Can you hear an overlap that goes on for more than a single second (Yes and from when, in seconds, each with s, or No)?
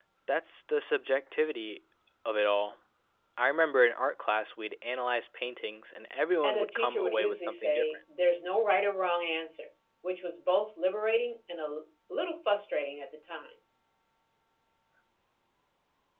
Yes, from 6.4 s